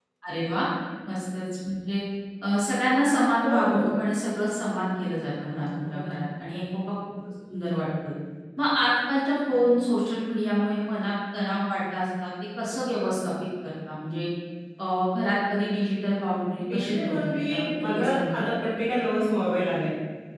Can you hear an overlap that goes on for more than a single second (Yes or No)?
Yes